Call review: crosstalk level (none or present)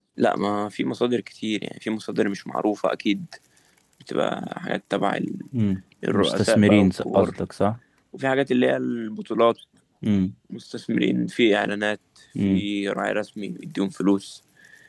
present